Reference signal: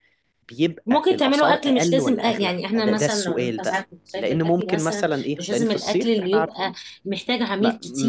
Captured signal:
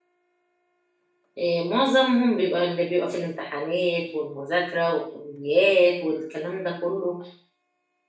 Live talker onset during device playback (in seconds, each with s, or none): 1.4 s